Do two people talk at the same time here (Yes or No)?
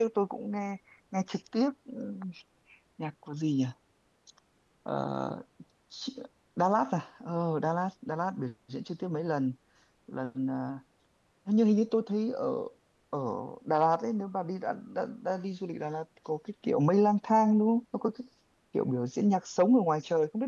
No